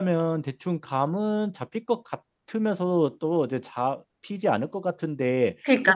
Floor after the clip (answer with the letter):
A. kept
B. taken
B